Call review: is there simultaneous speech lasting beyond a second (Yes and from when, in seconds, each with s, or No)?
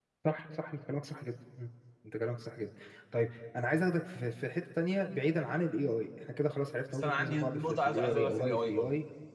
Yes, from 6.9 s